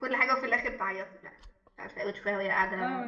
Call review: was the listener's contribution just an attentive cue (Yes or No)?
Yes